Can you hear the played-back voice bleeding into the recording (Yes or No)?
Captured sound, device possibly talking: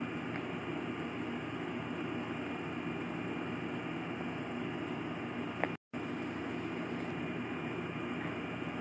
No